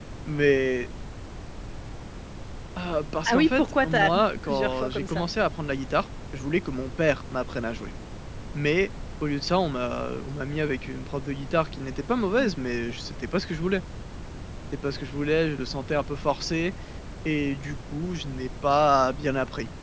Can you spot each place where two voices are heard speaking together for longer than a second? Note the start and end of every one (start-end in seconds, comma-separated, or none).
3.3-5.2